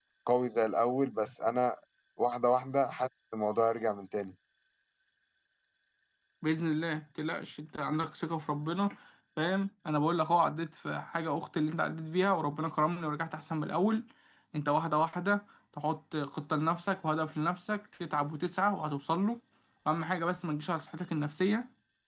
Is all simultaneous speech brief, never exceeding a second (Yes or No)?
Yes